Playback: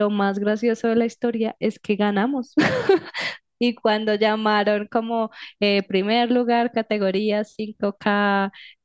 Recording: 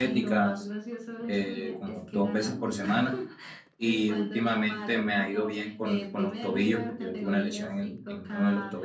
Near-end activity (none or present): present